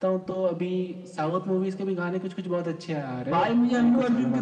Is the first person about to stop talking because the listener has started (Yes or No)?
Yes